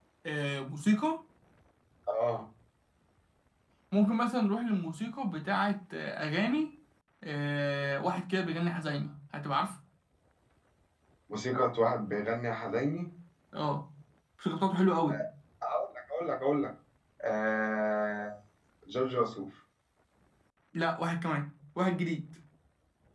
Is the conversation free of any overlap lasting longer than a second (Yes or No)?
Yes